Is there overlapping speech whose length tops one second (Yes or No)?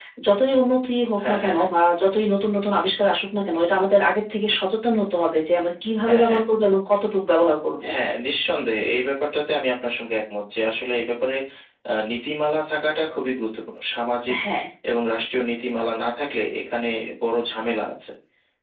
No